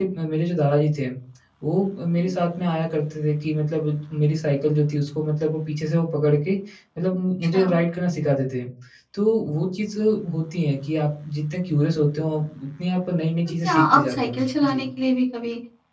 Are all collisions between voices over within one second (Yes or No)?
No